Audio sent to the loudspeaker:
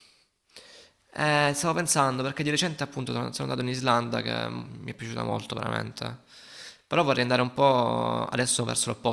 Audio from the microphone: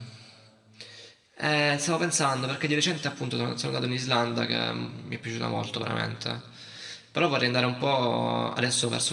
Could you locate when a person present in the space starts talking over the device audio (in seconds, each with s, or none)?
none